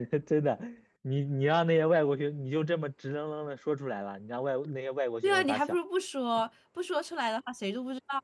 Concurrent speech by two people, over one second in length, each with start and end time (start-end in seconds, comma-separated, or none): none